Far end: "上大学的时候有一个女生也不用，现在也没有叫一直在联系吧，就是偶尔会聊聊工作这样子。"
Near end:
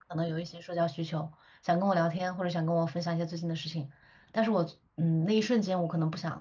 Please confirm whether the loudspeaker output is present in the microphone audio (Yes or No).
No